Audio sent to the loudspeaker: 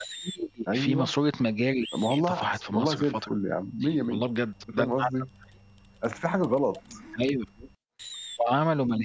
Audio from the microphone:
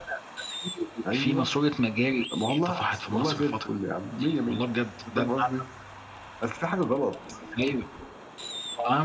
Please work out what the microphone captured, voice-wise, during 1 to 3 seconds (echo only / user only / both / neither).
echo only